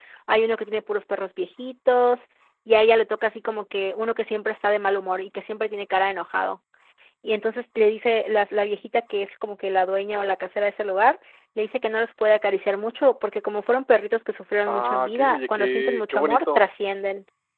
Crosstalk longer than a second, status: present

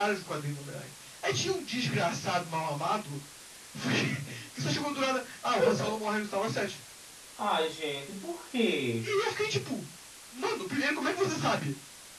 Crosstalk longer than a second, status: none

